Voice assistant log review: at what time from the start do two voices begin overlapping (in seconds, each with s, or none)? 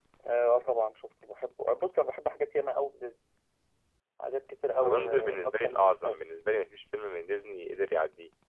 4.8 s